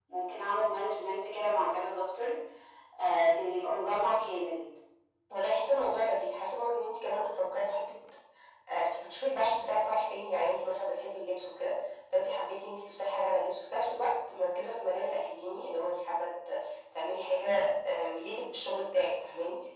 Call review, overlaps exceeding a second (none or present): none